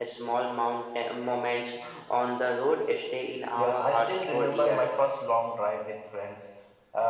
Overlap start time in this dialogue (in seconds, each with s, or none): 3.4 s